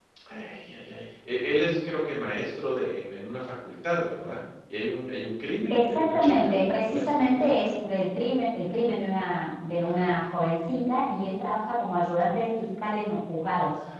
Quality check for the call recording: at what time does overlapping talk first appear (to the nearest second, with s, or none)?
6 s